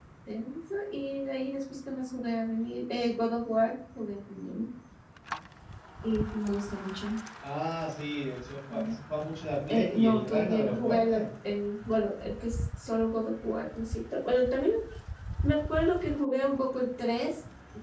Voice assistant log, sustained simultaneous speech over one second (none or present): present